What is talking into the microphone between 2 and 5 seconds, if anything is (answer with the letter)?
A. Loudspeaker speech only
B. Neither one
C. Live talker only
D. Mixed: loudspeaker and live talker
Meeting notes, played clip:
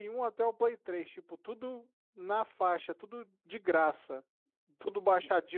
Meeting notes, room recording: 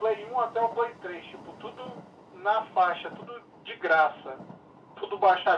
A